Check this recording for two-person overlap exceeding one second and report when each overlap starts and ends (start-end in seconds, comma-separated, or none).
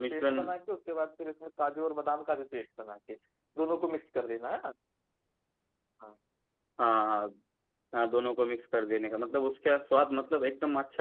none